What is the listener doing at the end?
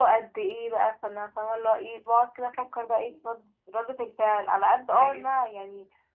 listening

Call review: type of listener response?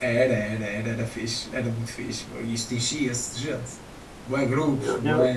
taking over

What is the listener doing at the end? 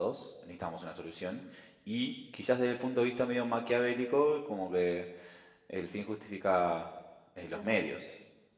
listening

